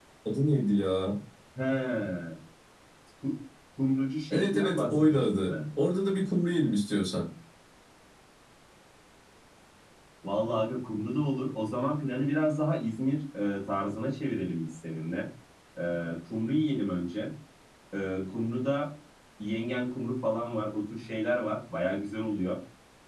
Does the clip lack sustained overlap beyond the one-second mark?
No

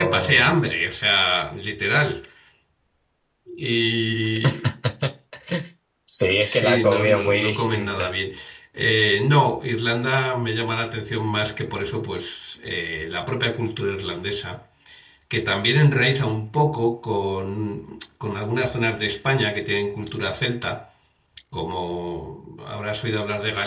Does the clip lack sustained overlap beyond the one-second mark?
No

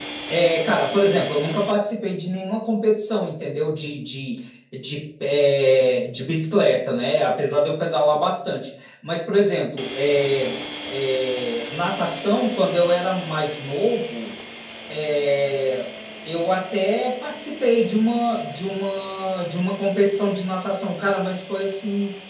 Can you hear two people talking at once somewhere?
No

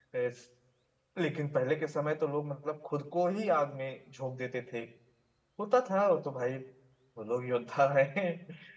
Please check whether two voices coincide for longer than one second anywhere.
No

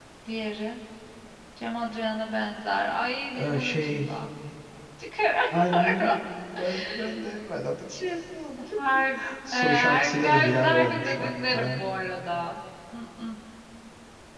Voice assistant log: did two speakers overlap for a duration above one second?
Yes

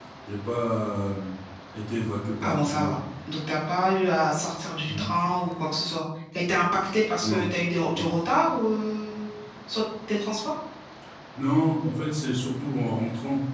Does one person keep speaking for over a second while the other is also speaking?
No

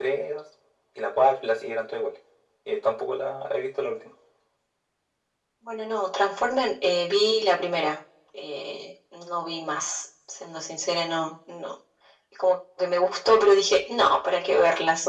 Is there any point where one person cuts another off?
No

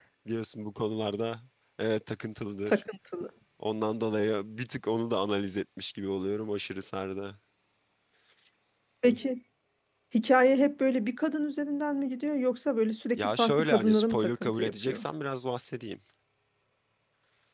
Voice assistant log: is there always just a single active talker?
No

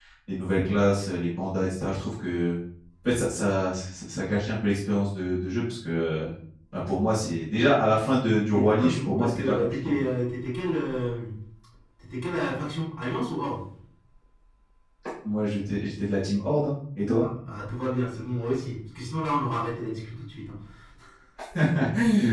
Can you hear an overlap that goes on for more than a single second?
Yes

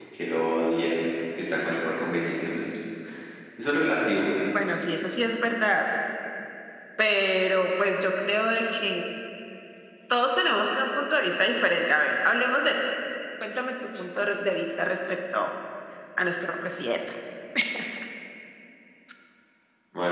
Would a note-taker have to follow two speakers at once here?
No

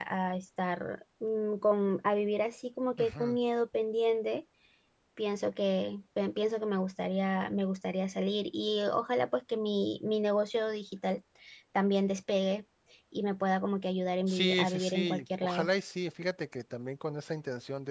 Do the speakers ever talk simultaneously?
Yes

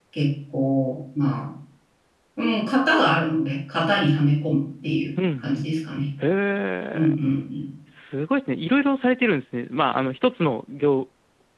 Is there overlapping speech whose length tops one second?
No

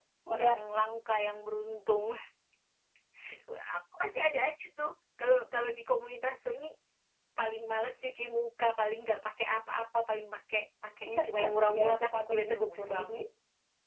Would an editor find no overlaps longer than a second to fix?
No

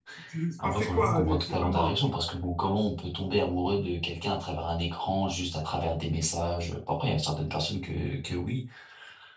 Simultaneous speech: Yes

